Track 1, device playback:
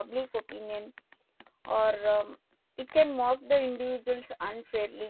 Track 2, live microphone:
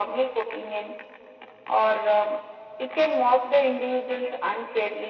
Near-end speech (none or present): none